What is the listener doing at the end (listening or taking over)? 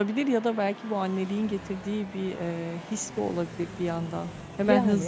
listening